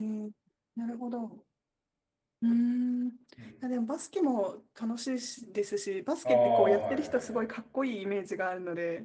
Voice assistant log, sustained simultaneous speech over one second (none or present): present